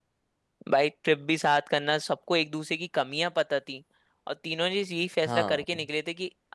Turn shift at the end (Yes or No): No